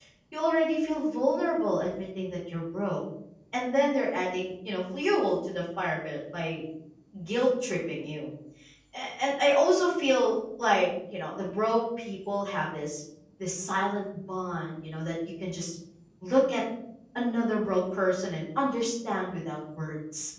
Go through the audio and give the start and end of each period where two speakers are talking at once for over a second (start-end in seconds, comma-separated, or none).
none